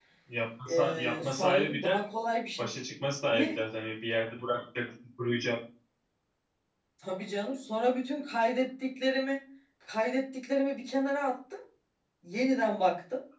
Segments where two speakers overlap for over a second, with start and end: 0.7-2.0

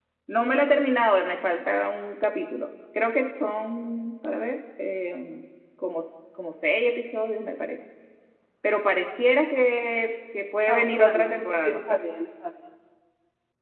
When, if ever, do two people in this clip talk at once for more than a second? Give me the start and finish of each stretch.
10.7-12.0

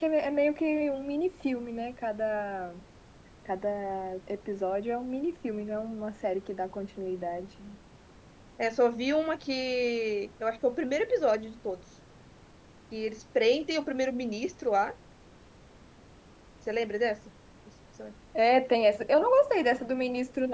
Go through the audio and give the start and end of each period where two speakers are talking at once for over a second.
none

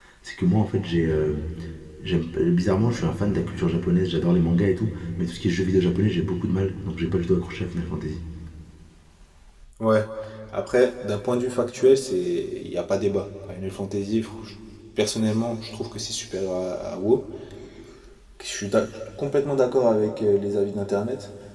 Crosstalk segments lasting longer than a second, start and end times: none

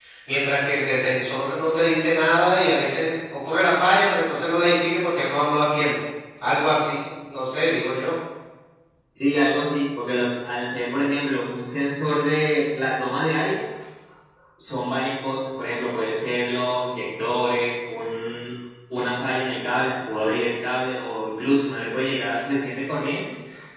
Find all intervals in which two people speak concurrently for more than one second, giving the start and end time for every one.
none

